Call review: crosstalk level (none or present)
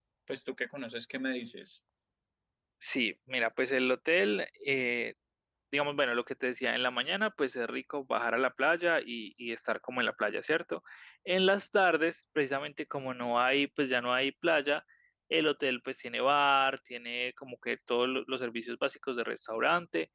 none